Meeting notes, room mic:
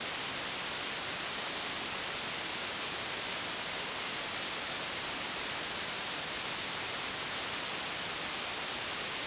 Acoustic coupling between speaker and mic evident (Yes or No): No